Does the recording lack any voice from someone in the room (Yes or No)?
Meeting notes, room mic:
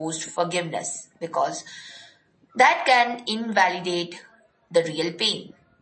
Yes